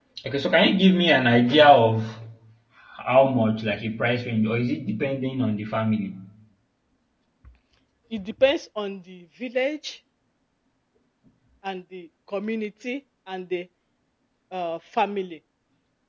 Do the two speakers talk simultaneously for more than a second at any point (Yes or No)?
No